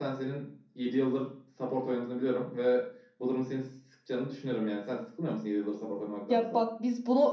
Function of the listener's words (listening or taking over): taking over